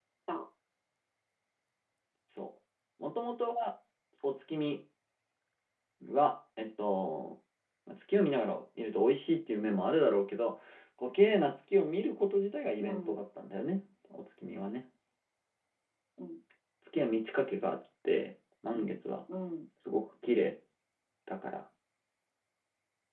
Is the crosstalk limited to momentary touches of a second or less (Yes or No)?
Yes